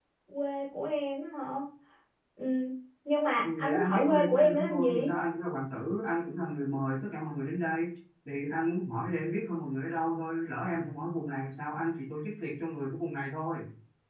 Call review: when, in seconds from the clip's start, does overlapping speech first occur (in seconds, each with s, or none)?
3.4 s